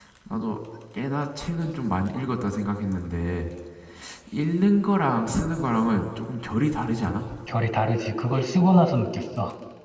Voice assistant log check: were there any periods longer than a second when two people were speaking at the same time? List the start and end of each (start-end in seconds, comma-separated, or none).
none